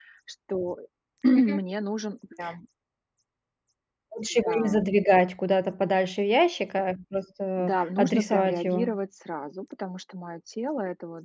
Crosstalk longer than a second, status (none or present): present